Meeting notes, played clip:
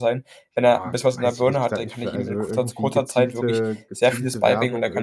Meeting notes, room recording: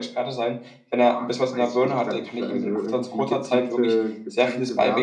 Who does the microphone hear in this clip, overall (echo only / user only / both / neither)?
echo only